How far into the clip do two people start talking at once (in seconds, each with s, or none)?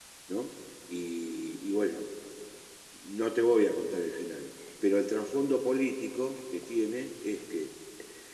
none